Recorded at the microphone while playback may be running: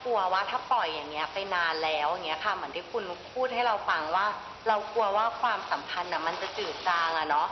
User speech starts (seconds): none

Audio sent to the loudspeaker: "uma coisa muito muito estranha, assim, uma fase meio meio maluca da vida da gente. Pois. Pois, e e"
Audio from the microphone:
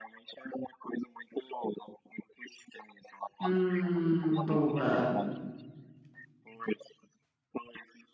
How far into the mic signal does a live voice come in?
3.4 s

